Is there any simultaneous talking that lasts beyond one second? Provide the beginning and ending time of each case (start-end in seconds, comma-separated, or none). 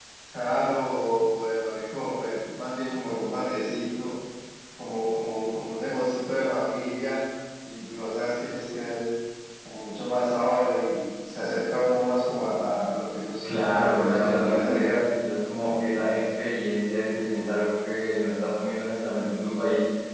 13.4-14.9